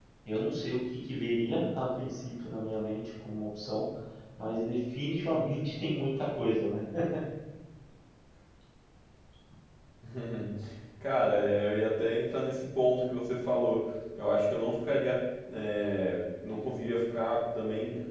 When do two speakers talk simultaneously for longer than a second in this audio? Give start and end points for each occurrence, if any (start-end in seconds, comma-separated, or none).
none